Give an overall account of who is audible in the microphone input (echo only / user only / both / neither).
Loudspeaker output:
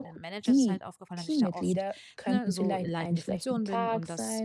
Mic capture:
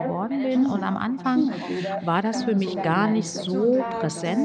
both